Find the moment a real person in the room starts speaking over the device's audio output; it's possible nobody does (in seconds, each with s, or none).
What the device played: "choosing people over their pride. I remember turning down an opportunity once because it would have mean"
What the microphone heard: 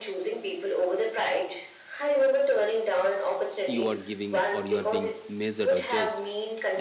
3.7 s